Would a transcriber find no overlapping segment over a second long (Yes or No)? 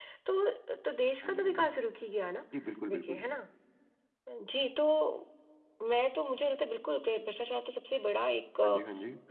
Yes